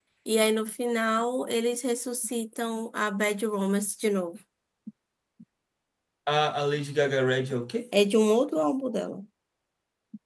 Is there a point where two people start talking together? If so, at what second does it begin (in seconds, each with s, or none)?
none